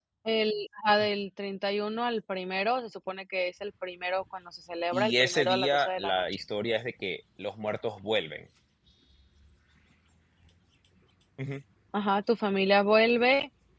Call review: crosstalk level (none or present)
present